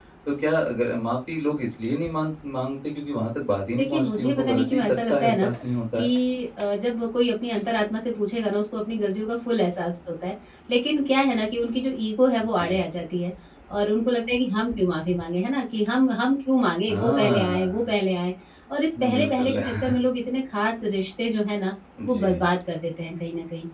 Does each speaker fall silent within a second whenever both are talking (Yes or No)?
No